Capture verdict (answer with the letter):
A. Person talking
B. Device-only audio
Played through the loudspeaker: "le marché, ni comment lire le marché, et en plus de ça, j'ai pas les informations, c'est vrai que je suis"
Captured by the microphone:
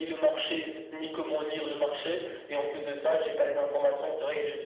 B